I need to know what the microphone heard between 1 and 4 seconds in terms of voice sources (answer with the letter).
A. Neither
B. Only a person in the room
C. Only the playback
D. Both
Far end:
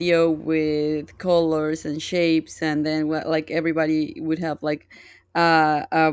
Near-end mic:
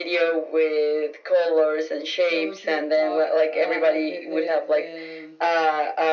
D